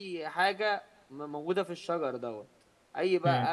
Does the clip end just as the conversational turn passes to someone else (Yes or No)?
No